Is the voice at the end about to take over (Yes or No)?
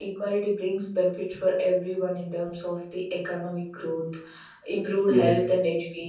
No